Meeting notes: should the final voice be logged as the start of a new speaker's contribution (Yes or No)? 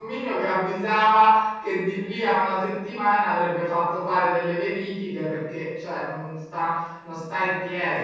No